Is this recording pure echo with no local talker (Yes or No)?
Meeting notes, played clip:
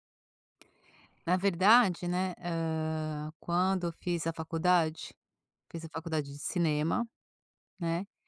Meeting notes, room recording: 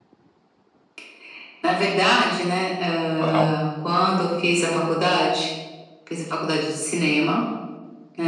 No